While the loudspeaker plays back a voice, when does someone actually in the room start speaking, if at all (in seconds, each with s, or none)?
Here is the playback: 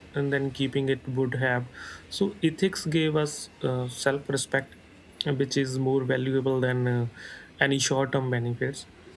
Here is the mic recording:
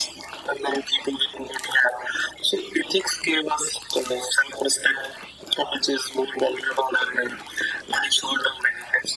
none